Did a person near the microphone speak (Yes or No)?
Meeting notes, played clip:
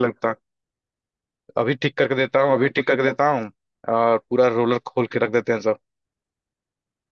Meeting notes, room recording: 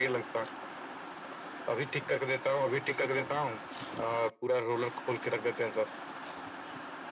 No